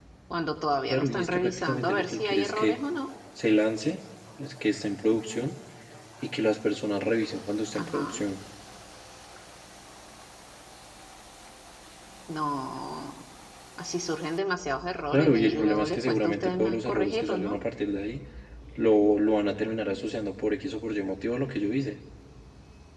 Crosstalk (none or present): present